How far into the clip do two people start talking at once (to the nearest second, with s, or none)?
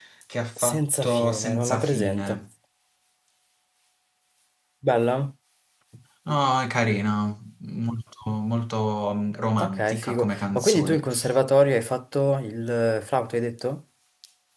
1 s